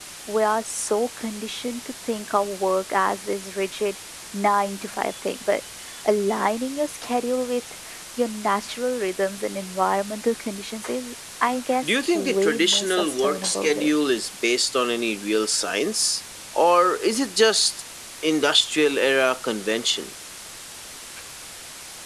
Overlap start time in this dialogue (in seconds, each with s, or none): 11.8 s